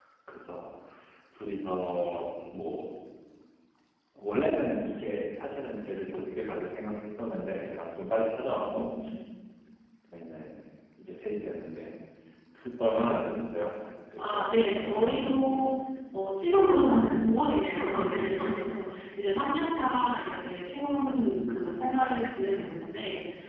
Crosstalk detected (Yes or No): Yes